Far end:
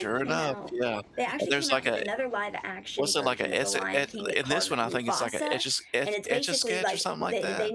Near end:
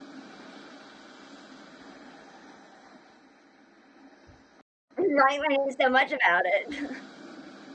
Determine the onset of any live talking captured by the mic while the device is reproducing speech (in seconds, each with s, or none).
4.9 s